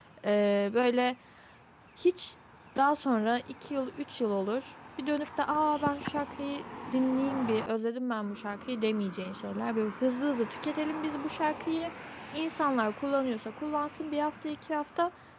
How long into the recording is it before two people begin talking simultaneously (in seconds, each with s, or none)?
none